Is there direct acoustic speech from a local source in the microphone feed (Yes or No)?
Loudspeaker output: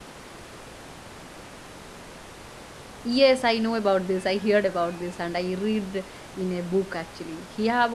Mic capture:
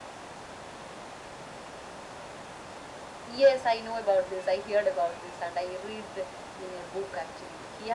No